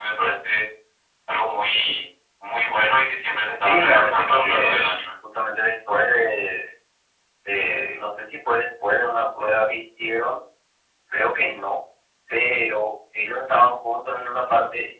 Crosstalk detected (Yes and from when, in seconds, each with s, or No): Yes, from 3.6 s